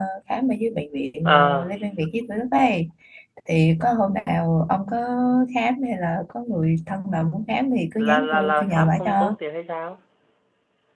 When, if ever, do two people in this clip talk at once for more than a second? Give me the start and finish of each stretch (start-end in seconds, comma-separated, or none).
8.0-9.3